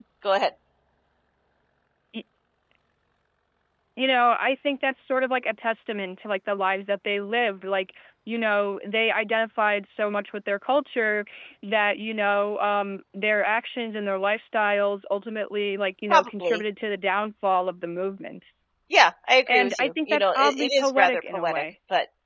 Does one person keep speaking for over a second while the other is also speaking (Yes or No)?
Yes